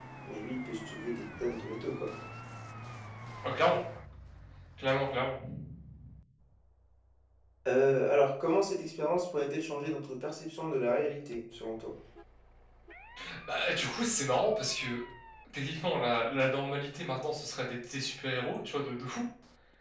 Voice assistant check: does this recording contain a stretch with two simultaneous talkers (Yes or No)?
No